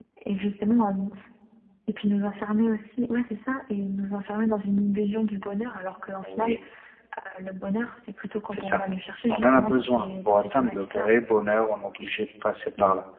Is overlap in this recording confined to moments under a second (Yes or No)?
No